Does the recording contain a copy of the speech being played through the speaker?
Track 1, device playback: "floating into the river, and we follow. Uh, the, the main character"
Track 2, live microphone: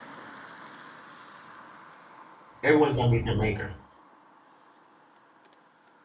No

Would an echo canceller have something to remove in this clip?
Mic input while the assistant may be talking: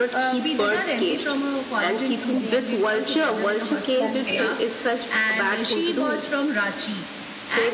Yes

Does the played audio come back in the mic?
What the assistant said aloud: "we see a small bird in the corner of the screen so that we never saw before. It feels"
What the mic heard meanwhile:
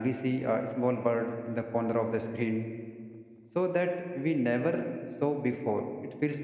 Yes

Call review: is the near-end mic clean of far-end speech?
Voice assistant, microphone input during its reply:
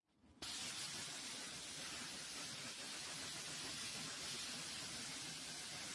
Yes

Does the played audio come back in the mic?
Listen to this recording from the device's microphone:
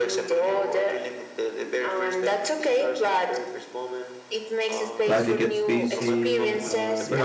Yes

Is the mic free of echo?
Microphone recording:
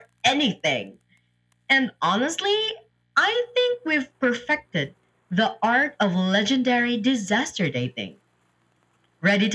No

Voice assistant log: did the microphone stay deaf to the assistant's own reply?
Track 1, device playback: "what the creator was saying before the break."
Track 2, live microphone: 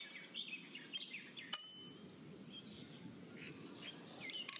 Yes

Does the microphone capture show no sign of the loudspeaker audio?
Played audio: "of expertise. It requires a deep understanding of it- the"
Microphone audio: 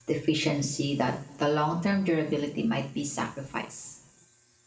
Yes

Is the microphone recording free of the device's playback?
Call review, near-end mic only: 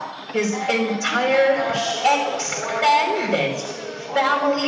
No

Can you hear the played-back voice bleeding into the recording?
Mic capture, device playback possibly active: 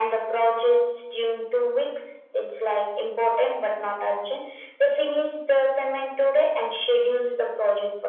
Yes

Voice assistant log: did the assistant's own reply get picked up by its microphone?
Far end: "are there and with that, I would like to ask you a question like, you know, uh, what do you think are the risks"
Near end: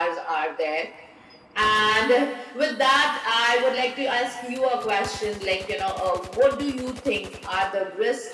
Yes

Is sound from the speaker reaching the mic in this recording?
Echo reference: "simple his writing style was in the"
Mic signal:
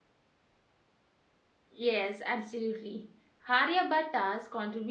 No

